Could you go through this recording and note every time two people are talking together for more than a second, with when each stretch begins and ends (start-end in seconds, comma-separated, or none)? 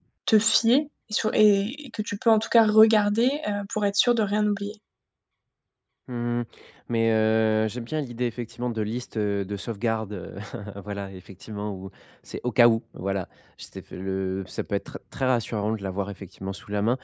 none